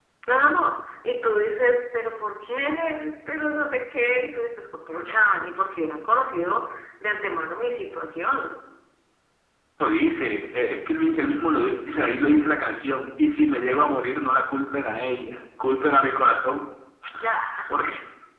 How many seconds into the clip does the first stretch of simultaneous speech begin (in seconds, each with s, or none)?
none